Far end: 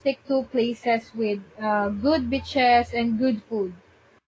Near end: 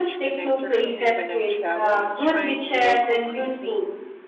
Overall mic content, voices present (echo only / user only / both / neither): both